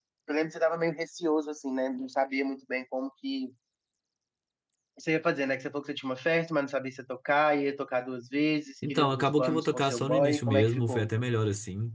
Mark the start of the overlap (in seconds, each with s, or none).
8.8 s